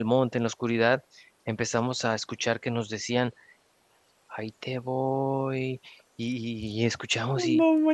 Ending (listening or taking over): listening